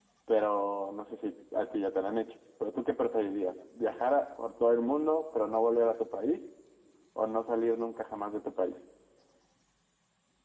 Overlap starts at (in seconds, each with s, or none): none